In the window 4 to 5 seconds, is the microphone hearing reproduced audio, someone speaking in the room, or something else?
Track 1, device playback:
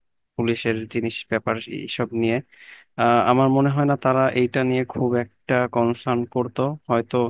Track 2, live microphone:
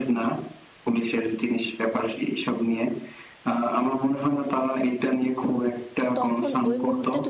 echo only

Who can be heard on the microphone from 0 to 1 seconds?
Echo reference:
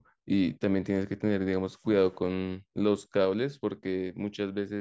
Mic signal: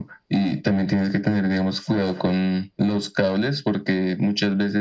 echo only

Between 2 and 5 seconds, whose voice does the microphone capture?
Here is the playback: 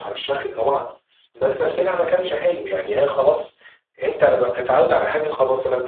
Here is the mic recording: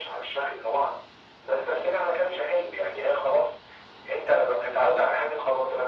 echo only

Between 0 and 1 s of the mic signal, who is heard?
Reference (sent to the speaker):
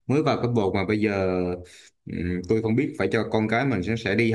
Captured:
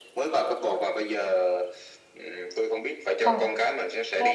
echo only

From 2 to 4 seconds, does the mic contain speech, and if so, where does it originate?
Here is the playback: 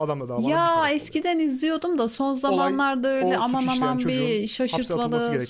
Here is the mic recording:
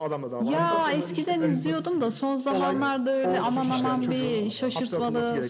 both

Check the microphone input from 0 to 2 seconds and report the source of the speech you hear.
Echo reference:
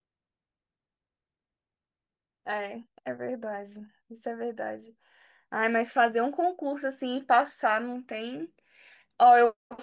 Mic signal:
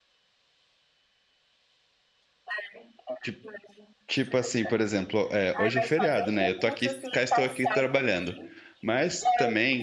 neither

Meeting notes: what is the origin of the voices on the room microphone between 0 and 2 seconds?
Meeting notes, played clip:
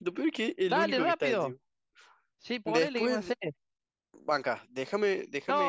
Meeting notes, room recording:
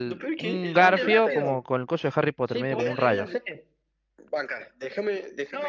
both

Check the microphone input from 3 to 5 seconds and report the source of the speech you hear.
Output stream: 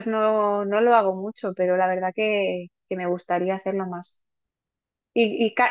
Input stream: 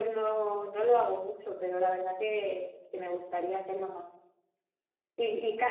echo only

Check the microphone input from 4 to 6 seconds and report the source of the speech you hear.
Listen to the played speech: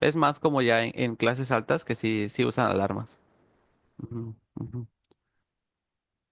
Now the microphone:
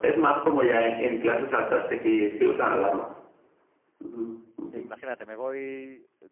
both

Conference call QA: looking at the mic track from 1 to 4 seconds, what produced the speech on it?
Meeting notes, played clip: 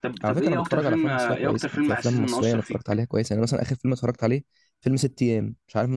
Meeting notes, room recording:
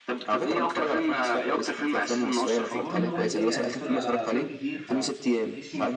both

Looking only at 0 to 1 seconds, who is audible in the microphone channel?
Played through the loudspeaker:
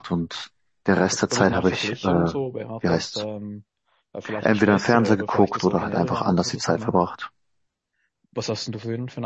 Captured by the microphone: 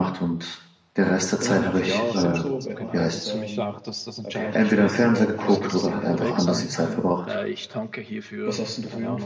echo only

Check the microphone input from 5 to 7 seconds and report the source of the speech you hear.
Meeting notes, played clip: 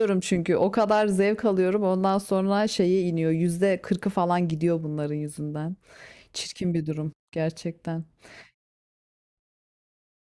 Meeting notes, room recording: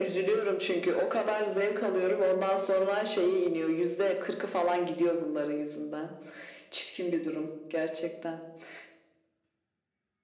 echo only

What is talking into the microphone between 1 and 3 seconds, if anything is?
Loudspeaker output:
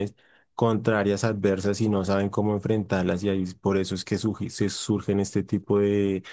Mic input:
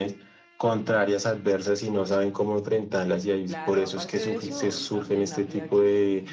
echo only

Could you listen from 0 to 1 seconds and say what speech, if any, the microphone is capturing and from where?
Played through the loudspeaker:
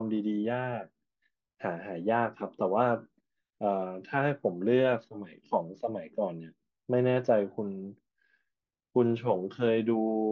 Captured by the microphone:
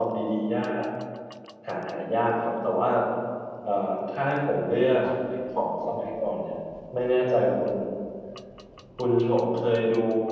echo only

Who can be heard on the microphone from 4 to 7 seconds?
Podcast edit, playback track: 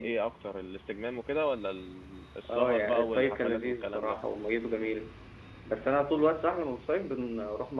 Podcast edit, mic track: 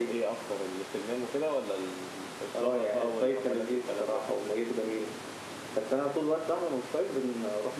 echo only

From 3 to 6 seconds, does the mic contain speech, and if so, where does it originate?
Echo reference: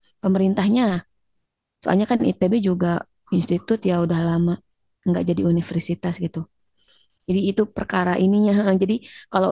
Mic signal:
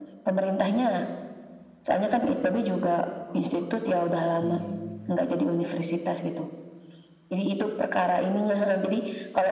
both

